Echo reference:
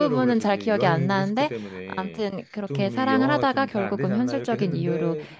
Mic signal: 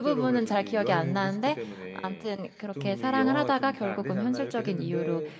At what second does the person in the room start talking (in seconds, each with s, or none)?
none